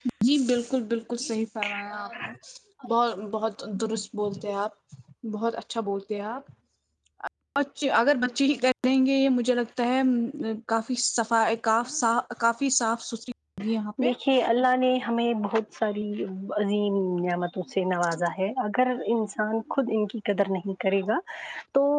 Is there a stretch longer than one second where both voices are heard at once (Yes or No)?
No